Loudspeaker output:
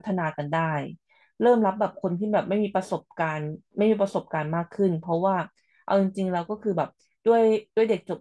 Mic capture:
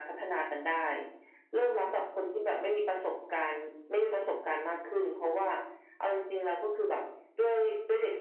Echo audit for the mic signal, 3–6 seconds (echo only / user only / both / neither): echo only